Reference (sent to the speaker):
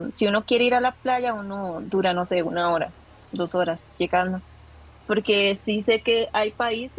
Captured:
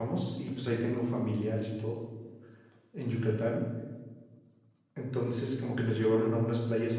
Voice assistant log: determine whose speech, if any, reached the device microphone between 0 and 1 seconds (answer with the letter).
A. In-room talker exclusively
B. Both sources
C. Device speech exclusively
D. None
A